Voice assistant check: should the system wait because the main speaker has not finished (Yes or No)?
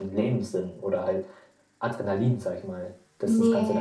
No